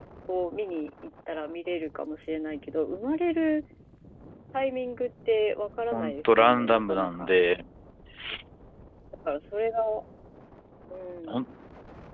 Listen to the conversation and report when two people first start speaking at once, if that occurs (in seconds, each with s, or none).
5.9 s